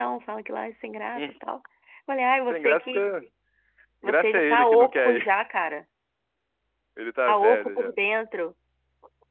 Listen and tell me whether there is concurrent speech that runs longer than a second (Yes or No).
Yes